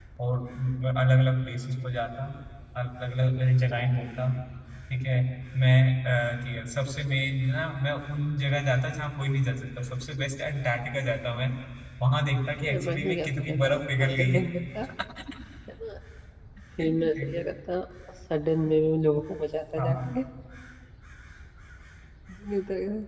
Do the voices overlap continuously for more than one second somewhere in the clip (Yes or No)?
Yes